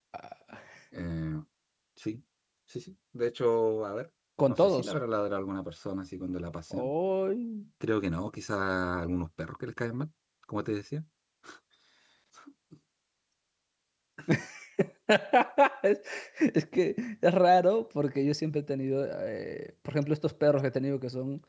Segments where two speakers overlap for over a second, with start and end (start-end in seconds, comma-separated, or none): none